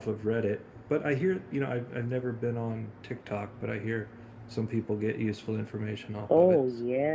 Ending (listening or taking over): taking over